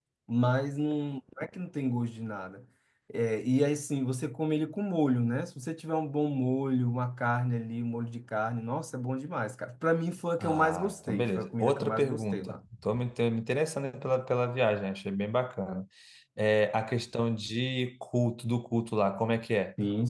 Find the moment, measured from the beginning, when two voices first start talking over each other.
10 s

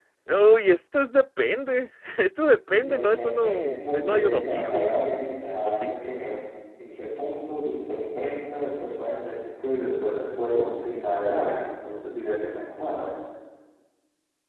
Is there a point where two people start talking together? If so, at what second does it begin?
3 s

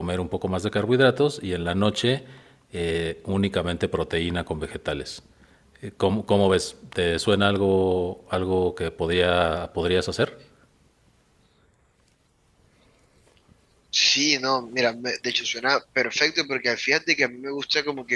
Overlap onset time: none

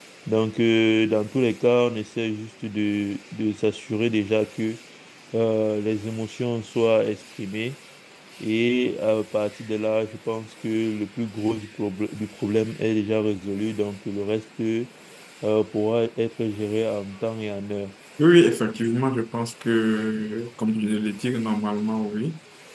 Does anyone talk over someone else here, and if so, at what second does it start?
none

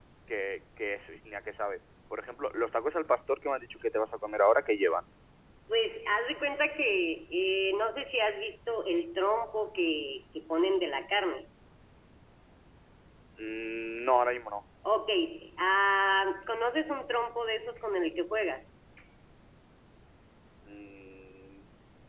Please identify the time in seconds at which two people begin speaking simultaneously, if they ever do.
none

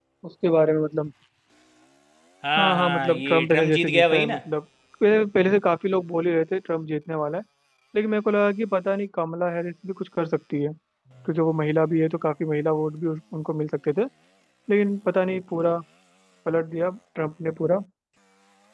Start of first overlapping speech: 3 s

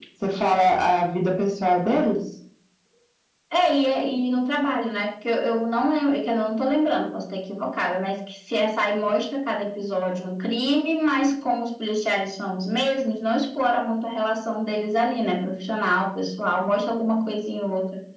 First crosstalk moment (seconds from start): none

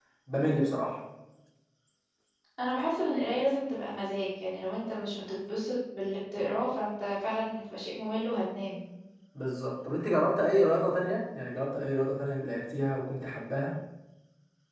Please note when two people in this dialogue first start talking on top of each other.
none

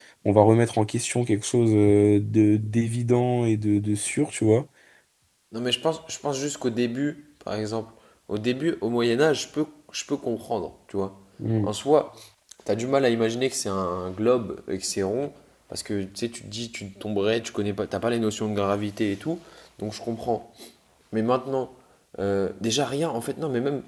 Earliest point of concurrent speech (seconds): none

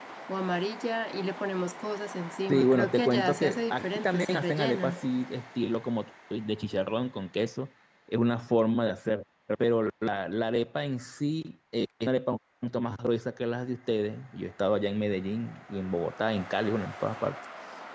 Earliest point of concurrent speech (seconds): 2 s

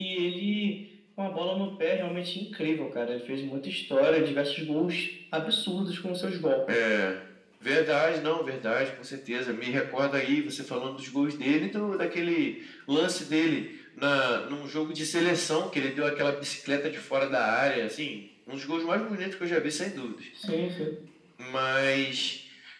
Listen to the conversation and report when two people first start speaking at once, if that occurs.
none

